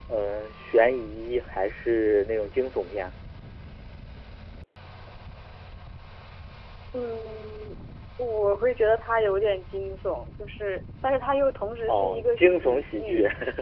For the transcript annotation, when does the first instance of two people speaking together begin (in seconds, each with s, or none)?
11.9 s